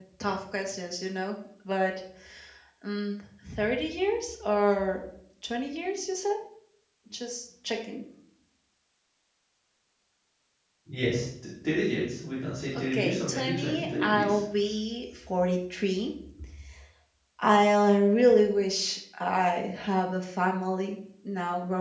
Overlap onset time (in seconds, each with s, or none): 12.8 s